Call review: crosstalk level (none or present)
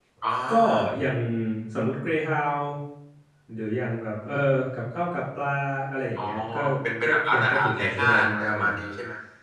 present